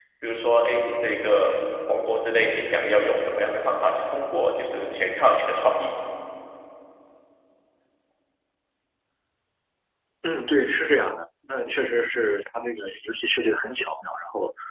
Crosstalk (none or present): none